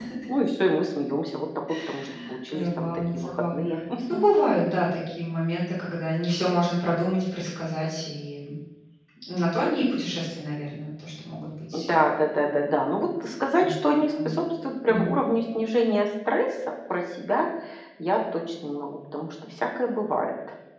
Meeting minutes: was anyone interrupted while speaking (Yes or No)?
Yes